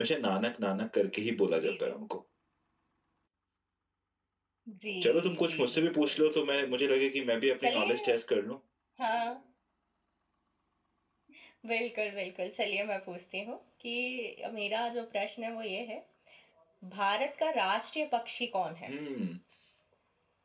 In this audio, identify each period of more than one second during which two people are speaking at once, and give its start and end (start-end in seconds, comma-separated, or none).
5.0-6.7